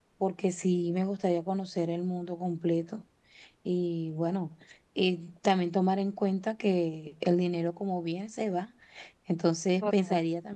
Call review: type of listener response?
listening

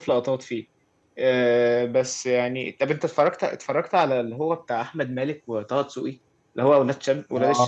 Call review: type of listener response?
taking over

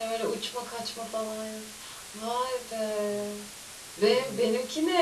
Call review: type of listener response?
listening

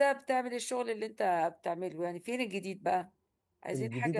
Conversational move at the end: taking over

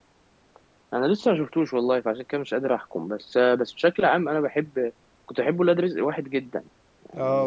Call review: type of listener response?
taking over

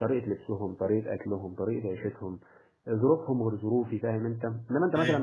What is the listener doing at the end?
listening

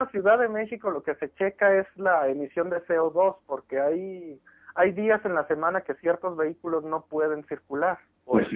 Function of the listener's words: taking over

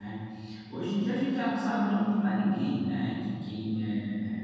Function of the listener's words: listening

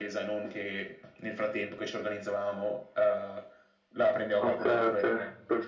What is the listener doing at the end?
taking over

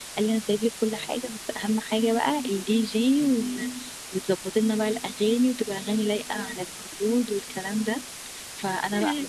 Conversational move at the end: listening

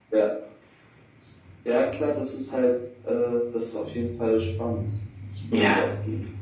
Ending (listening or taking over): taking over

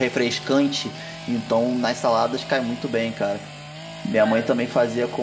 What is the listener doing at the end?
listening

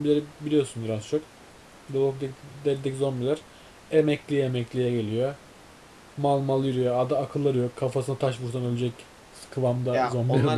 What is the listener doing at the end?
taking over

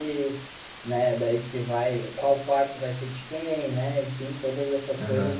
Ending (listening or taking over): listening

